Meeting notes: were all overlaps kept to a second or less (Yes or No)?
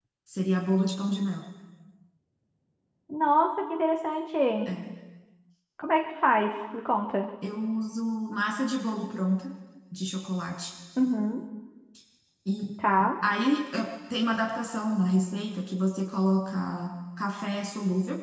Yes